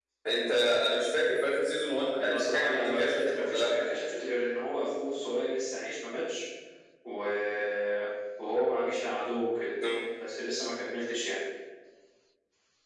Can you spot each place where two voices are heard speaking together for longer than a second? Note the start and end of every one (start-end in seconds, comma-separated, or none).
2.2-3.7